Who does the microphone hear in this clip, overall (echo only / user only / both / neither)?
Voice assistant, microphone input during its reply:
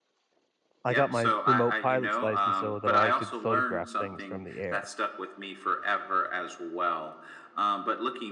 both